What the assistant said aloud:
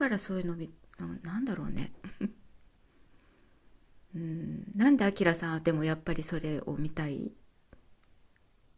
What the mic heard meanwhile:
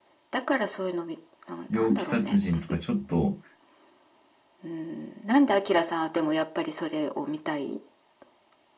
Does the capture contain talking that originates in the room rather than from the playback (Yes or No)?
Yes